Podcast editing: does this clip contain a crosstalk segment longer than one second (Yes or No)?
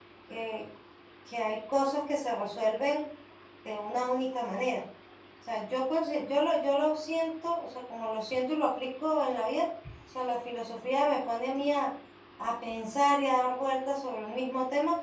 No